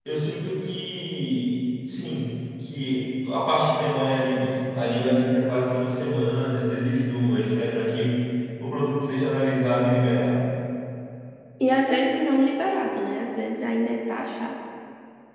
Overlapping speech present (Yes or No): No